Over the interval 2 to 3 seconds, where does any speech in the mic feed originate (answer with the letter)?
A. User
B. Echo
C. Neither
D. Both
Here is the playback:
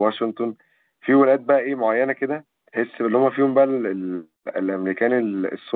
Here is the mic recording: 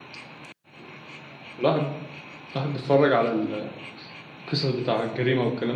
A